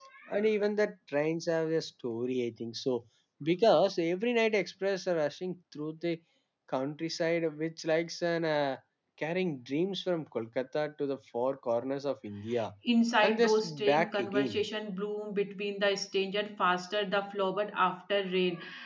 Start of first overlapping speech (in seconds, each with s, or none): 13.2 s